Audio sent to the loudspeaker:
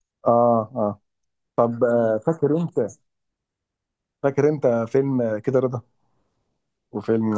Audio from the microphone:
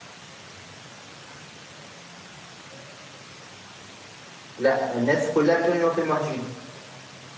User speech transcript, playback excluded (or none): لا الناس كلها بتقول ان هو فيلم وحش جدا